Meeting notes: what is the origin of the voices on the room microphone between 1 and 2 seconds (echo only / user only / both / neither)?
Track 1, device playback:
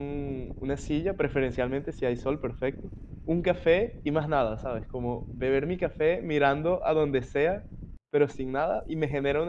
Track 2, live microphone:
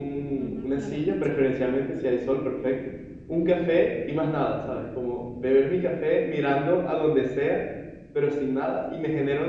both